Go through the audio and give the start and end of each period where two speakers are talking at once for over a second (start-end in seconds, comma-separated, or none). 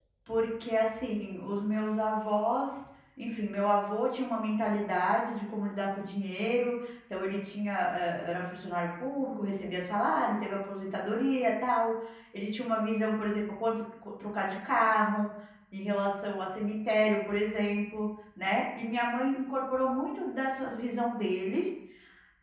none